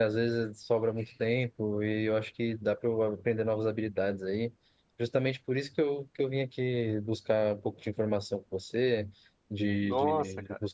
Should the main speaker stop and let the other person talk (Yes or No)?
No